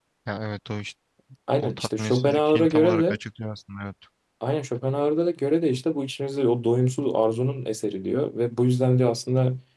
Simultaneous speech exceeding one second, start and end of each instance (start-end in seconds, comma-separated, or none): 1.6-3.2